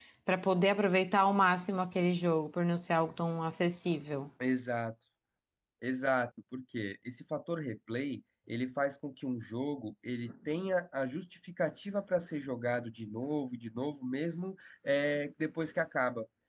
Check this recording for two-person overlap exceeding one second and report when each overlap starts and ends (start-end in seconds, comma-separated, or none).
none